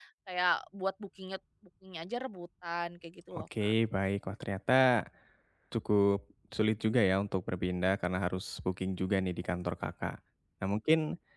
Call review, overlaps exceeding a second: none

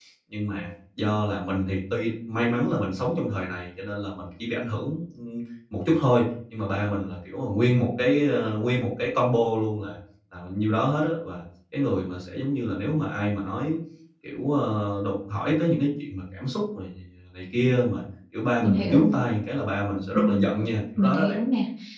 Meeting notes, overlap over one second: none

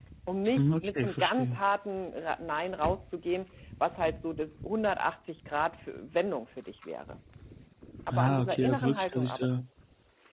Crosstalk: present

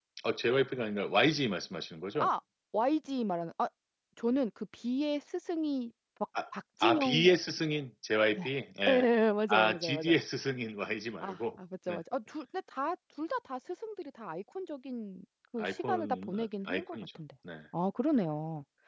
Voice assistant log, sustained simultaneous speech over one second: present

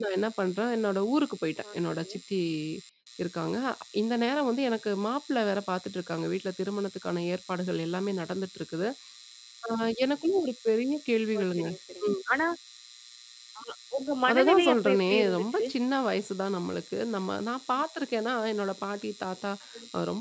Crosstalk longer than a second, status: present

